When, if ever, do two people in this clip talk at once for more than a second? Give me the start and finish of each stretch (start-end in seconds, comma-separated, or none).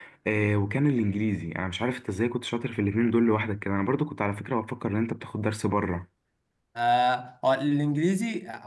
none